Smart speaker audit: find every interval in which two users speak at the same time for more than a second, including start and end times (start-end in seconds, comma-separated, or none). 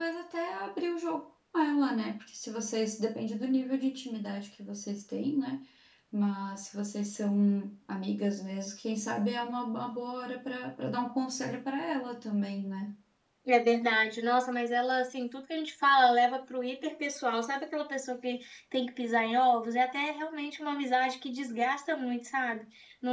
none